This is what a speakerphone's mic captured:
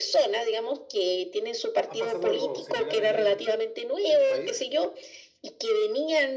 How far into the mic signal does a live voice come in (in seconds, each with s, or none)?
1.9 s